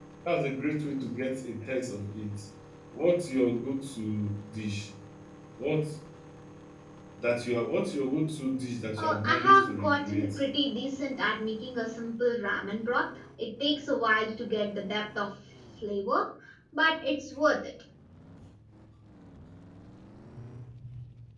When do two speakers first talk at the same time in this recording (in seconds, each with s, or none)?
9.0 s